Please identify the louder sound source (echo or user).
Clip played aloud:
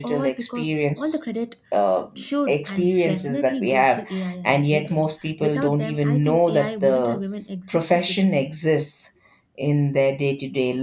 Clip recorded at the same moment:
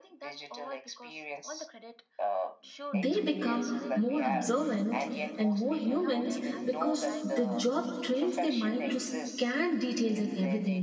user